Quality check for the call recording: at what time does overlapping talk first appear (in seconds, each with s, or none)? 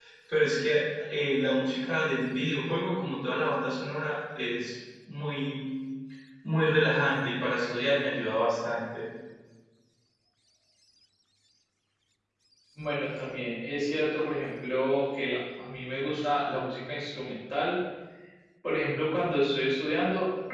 none